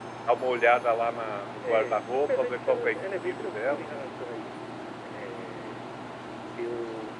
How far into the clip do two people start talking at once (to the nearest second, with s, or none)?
2 s